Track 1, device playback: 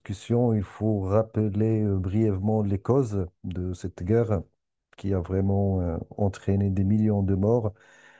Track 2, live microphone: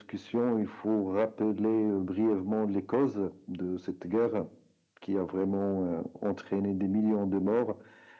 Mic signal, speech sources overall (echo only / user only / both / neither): echo only